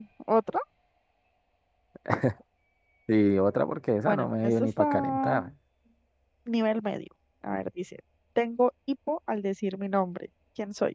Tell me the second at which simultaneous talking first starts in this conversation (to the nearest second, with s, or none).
4 s